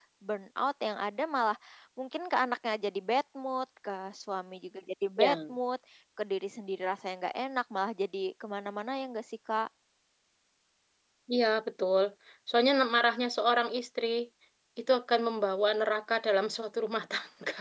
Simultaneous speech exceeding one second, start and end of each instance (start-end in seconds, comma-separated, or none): none